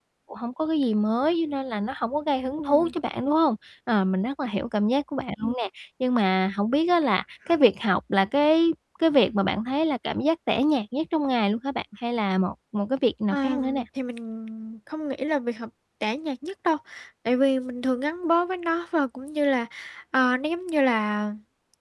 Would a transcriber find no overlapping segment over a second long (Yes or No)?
Yes